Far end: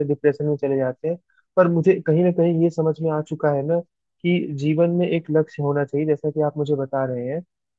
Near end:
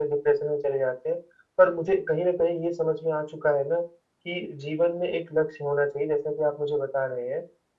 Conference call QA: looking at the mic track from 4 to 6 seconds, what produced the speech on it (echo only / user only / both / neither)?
echo only